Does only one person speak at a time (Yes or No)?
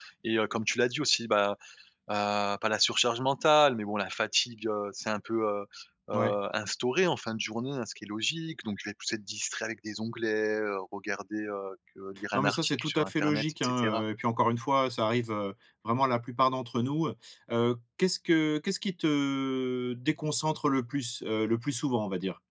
No